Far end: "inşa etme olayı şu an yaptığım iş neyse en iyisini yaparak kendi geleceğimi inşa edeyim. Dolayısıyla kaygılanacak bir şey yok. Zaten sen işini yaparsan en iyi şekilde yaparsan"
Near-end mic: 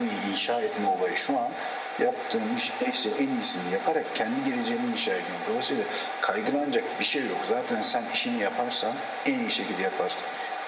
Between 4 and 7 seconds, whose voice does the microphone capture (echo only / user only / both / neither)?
echo only